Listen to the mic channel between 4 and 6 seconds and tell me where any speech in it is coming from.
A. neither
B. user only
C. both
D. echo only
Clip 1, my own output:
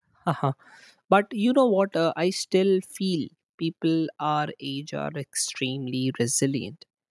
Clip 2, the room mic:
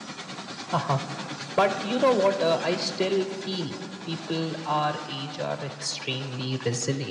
D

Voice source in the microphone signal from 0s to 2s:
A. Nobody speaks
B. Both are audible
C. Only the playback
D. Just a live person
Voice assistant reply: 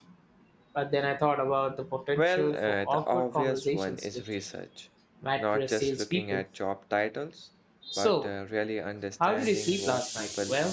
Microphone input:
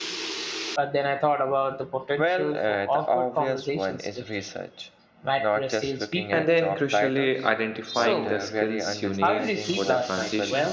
C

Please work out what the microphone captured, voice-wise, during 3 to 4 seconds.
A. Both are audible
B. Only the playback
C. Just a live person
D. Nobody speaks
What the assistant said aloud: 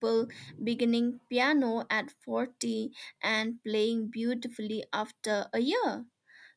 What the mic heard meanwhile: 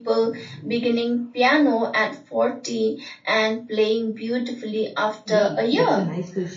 B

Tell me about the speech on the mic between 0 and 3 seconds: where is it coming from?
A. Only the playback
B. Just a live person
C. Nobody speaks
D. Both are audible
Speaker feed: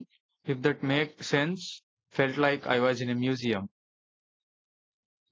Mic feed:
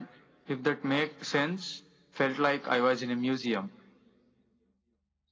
A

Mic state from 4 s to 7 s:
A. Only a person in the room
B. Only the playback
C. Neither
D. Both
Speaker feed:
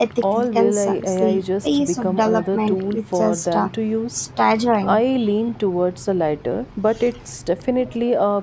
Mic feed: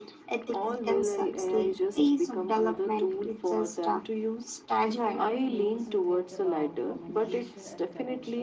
D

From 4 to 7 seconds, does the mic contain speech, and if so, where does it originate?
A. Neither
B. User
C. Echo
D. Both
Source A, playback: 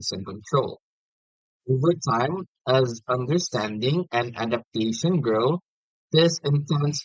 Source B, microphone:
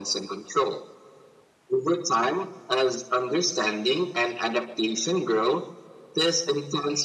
C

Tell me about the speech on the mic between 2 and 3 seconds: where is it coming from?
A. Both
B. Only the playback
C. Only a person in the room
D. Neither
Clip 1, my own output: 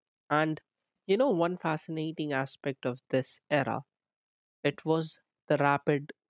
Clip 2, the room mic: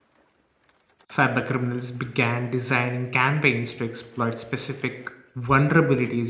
C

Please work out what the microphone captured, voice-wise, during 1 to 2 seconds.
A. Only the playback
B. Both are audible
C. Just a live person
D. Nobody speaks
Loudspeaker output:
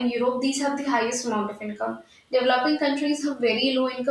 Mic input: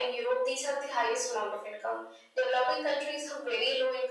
A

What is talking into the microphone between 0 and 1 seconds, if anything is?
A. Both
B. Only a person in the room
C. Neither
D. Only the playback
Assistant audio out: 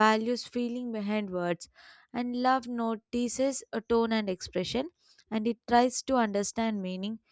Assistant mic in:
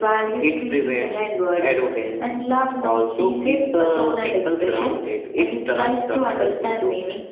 A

